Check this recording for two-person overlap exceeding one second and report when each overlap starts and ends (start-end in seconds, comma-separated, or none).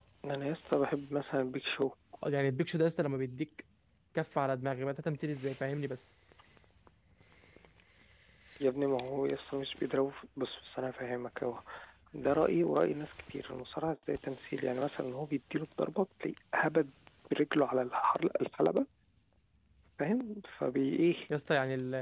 none